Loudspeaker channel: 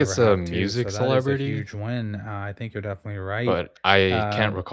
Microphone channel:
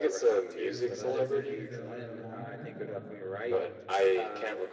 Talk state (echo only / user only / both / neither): both